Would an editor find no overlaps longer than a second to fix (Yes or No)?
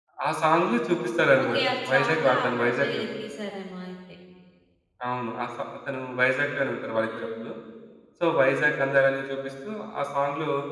No